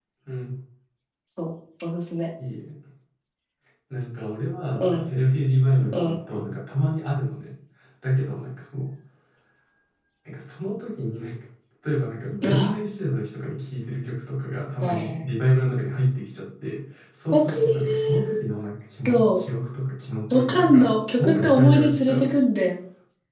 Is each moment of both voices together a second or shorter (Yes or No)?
No